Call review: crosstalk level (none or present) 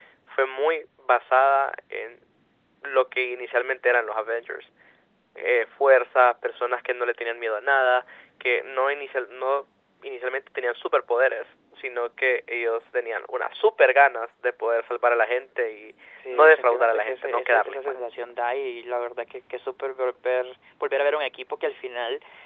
present